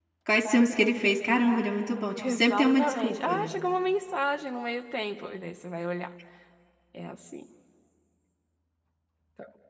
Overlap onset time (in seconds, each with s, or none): 2.2 s